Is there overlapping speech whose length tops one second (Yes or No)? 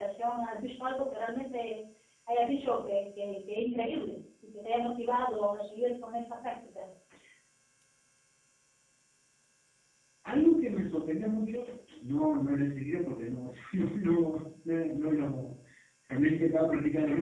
No